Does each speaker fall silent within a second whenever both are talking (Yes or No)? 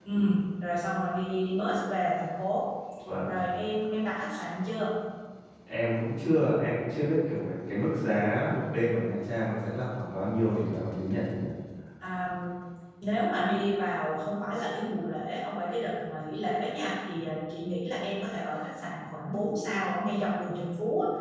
Yes